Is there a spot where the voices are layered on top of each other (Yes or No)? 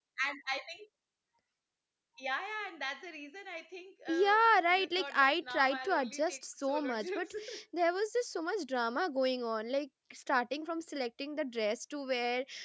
Yes